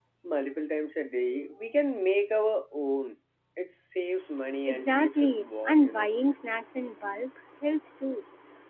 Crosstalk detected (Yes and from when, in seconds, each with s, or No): Yes, from 4.7 s